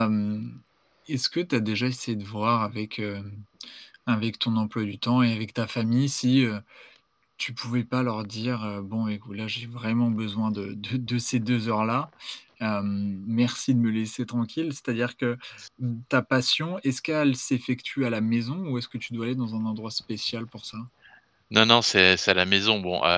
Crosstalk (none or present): none